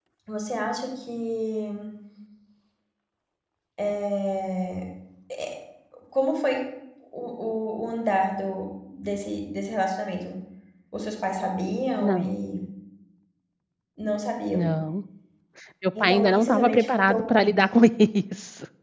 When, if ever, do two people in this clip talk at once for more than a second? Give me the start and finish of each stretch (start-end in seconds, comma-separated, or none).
16.0-17.6